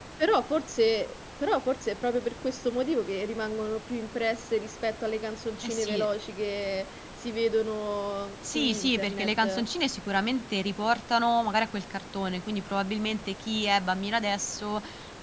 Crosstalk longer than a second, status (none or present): present